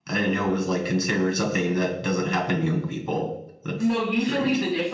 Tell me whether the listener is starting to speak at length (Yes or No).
Yes